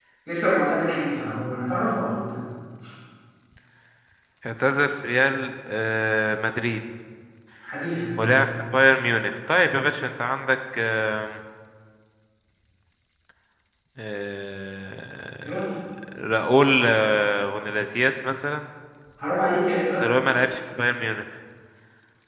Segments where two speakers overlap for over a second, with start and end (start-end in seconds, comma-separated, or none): none